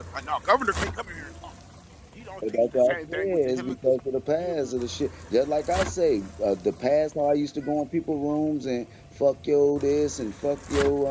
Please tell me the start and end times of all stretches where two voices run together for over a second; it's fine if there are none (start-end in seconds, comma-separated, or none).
2.5-3.8